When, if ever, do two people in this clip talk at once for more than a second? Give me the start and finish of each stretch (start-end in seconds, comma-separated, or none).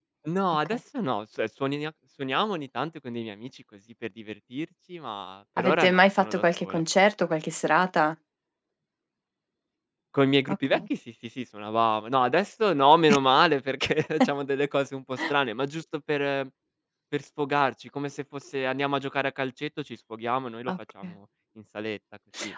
5.6-6.8